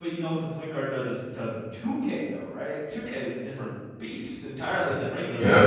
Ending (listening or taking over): taking over